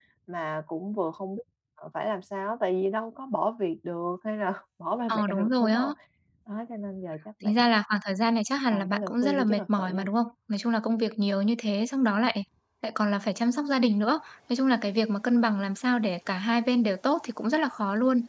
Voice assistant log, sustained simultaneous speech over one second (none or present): present